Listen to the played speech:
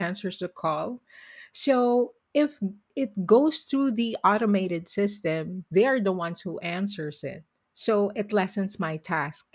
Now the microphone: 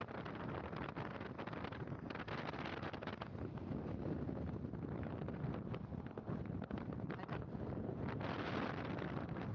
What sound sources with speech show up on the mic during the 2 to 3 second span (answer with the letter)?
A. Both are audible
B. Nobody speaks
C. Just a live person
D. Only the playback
B